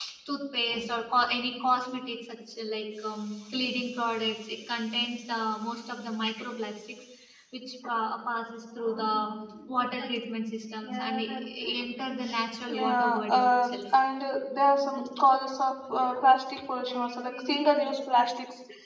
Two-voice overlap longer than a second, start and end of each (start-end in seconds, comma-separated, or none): 12.7-14.0